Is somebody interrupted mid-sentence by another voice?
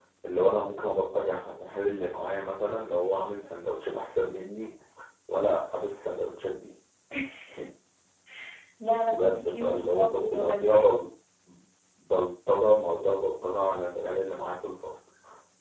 Yes, from 9.1 s

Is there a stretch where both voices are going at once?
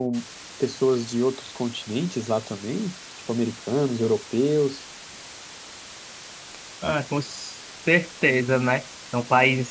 No

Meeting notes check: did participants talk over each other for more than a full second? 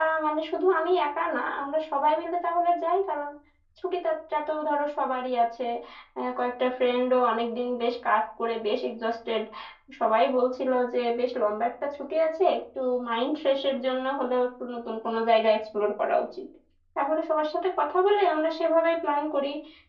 No

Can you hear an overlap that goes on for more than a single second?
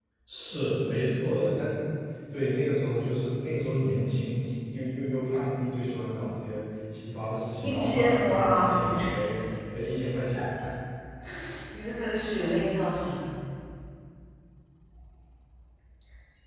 Yes, from 7.6 s

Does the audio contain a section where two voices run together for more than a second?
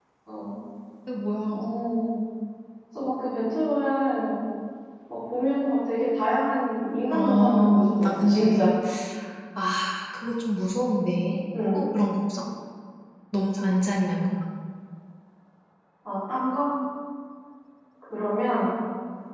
Yes, from 7.1 s

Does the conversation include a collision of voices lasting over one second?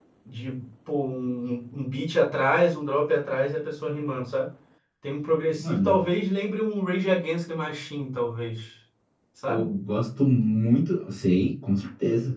No

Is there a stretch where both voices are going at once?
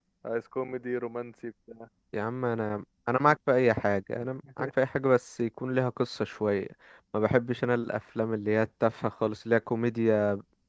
No

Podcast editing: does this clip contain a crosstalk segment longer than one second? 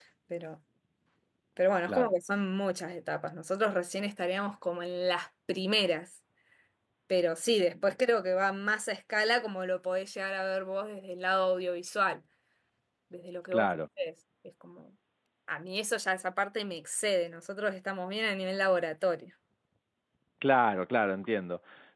No

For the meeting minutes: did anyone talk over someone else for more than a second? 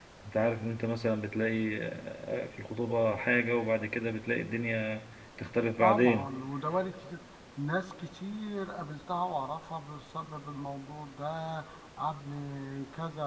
No

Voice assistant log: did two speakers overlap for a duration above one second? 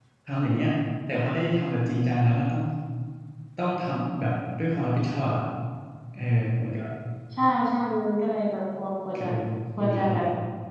No

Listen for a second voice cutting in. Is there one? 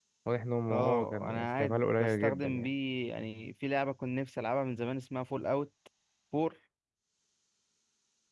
Yes, from 0.7 s

